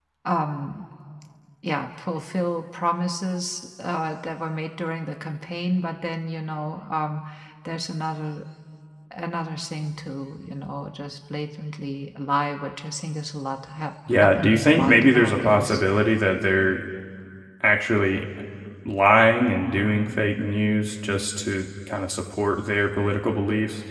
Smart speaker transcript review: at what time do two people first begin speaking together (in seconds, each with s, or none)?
14.1 s